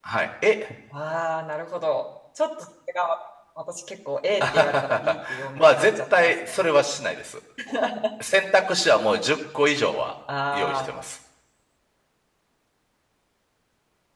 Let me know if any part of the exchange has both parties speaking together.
Yes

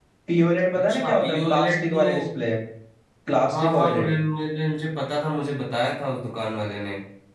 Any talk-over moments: Yes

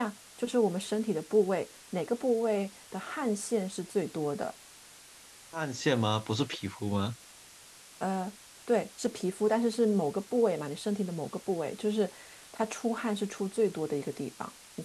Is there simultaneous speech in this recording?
No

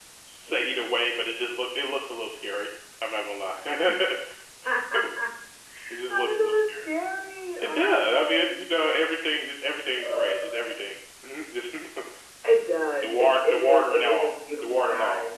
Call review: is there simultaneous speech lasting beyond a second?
Yes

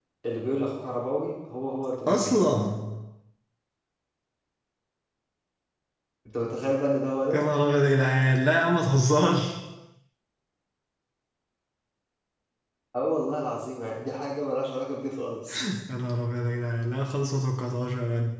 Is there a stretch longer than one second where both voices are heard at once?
No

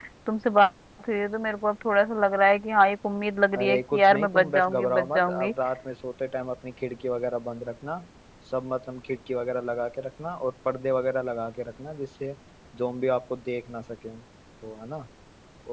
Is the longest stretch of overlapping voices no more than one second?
No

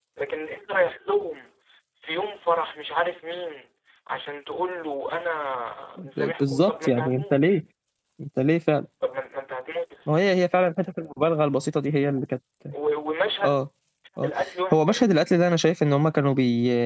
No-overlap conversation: No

